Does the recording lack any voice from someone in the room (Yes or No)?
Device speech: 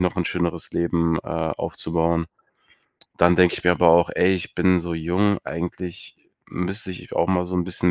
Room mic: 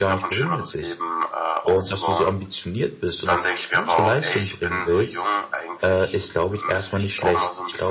No